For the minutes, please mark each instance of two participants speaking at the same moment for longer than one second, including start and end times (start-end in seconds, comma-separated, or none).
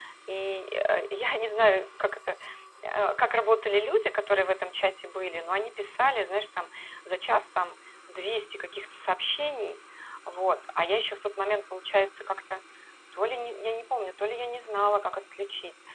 none